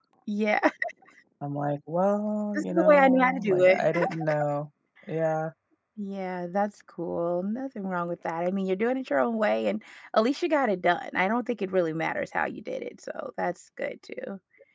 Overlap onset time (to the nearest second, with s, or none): 3 s